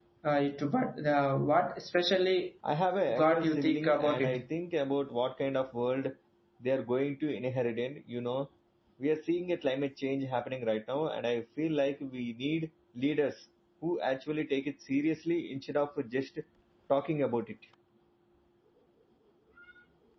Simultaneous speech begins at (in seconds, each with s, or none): 3.1 s